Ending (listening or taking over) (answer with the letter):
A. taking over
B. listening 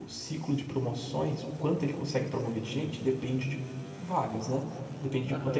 A